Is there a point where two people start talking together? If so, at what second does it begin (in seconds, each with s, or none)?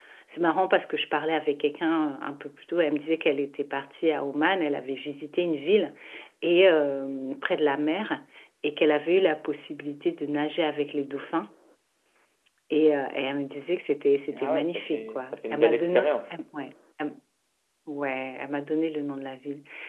14.3 s